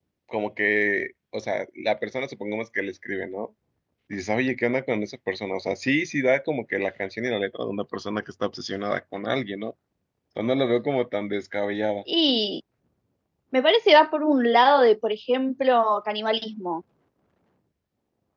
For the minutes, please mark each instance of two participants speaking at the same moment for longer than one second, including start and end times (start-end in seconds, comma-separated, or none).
none